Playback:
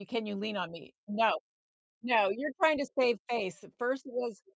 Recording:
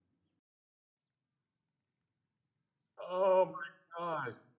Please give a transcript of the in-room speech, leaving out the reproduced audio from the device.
Oh my gosh.

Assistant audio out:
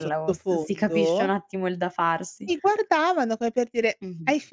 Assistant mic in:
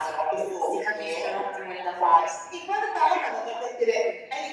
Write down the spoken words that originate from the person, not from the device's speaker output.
none

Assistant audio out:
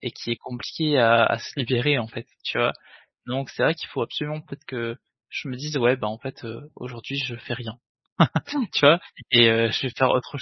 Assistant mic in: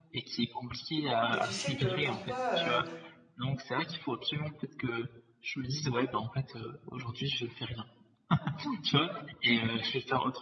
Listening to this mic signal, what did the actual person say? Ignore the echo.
Et tu sais que parfois, heu

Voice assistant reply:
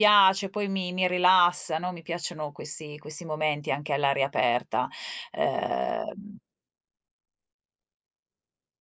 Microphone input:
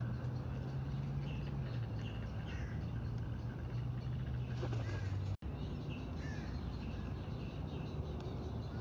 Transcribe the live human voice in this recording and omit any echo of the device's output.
none

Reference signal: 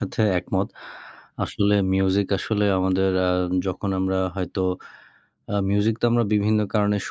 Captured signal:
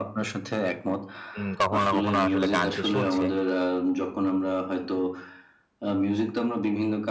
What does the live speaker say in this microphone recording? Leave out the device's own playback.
উম কখনো না কখনো আসলে গান সে শুনছে।

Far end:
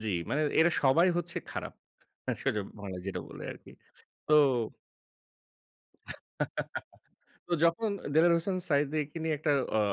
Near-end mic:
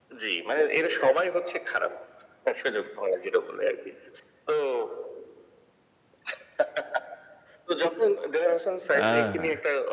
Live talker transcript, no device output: অ্যা

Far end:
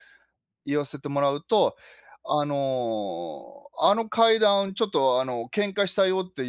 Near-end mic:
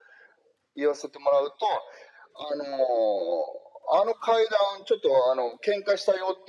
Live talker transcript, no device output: none

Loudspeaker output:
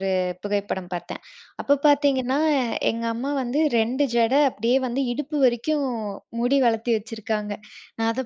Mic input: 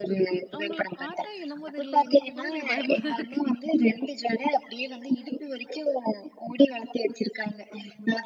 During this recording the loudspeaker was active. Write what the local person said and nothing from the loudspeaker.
அவுங்கள பாத்தா, என்னமோ தெரில! இன்னைக்கு கூட எனக்கு பயமா தான் இருக்கு.

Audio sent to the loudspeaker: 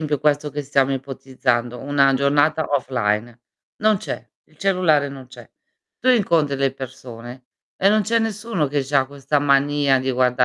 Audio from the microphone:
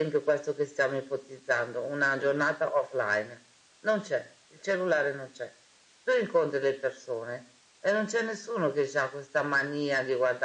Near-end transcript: none

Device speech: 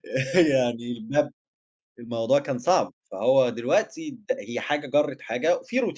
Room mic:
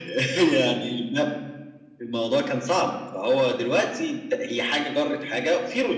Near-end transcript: none

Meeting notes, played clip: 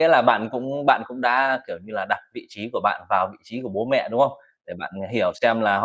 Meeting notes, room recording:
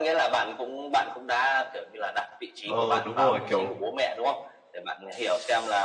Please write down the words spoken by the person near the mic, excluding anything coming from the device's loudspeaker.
Ờ, đúng rồi, kiểu

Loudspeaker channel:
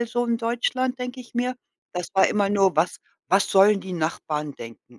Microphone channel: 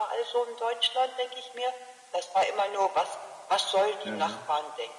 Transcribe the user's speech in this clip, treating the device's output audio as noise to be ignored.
Jaha.

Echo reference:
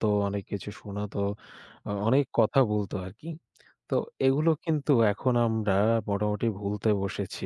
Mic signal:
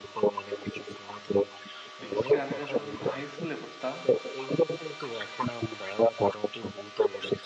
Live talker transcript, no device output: বিশেষ করে আমি যখন high school এ পড়তাম।

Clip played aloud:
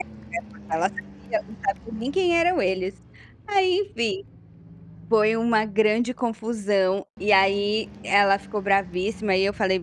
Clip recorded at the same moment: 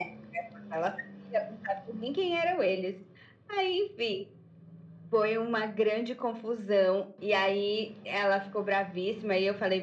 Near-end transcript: none

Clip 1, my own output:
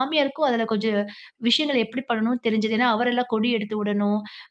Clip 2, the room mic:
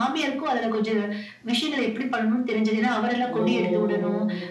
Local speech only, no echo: ஓ!

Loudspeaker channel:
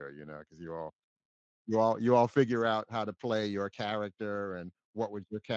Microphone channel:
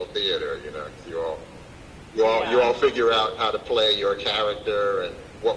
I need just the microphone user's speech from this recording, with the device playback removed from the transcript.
Yeah.

